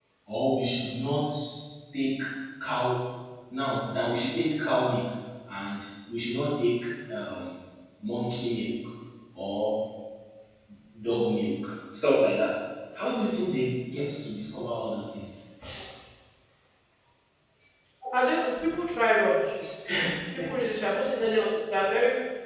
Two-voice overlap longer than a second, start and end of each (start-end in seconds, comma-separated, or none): none